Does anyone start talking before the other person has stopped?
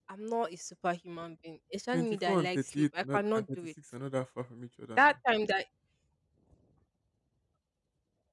Yes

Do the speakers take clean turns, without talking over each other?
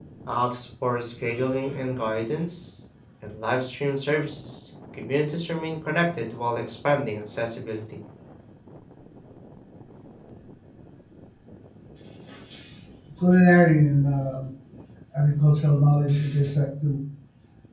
Yes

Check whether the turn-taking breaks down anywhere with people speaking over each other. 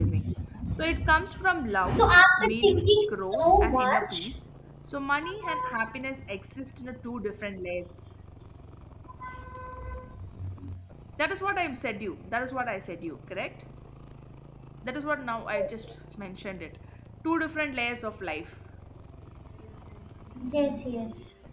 Yes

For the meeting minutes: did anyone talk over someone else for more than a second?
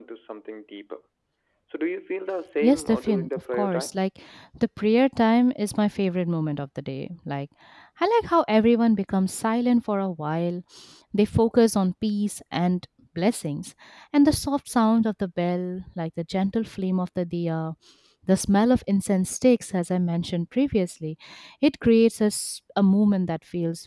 Yes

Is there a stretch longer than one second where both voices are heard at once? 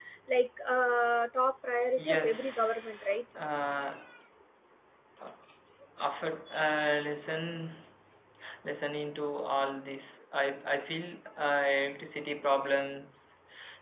Yes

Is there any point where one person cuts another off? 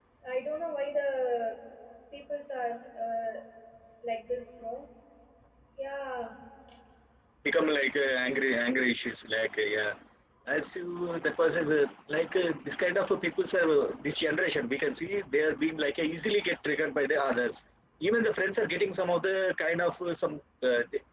No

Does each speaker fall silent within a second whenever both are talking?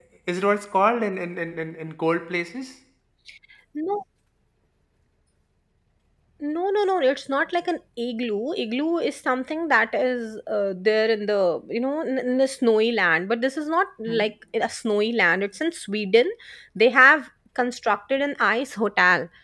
Yes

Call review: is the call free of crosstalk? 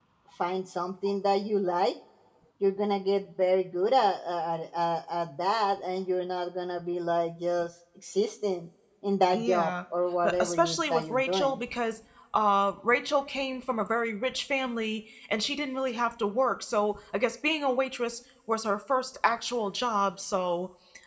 No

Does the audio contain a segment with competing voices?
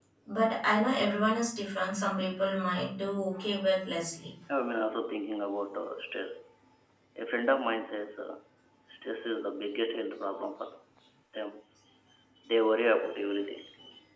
No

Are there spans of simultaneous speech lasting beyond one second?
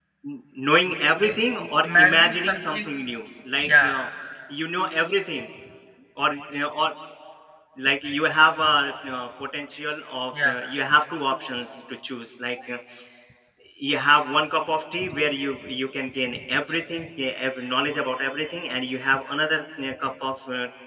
Yes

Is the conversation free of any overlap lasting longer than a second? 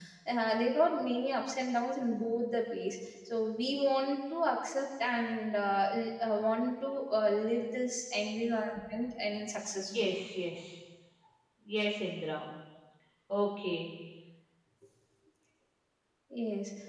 Yes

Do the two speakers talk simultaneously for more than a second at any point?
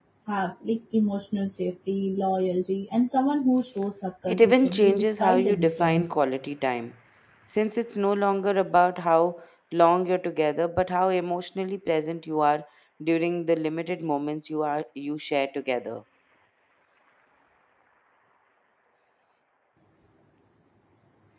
Yes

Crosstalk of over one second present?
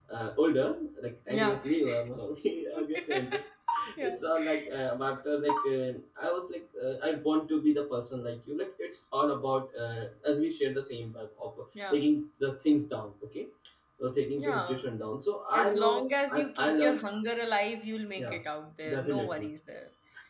Yes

